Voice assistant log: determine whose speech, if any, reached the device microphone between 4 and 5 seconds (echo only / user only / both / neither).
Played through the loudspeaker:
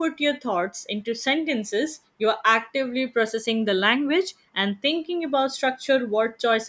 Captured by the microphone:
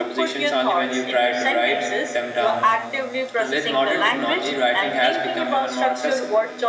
both